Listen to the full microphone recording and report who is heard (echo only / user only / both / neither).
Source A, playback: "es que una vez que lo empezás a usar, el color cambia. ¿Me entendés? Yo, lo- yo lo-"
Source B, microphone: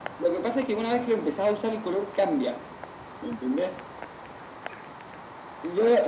echo only